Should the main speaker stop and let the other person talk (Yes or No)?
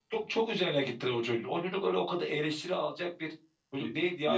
No